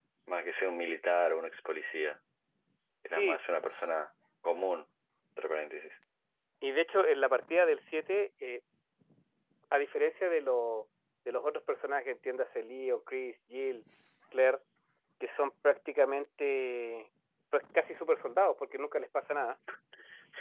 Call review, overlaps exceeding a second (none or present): none